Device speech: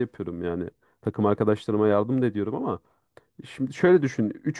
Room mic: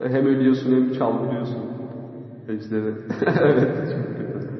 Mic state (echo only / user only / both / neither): user only